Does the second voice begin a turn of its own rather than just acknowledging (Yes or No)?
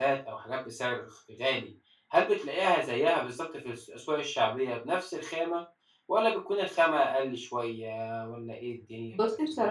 Yes